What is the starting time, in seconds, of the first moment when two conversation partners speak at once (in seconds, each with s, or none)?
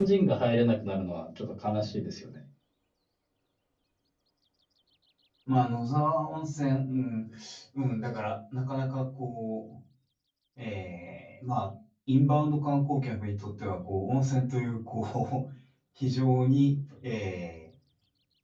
none